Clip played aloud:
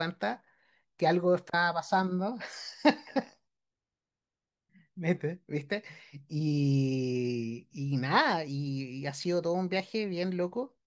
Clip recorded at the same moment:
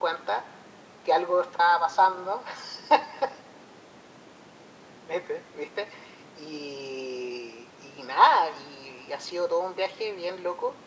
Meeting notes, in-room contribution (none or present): none